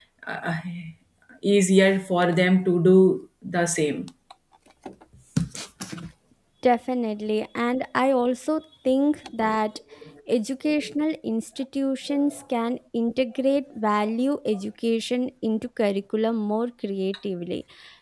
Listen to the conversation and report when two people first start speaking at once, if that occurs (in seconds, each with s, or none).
none